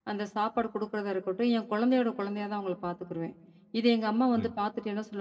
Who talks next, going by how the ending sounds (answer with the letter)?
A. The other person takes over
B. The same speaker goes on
B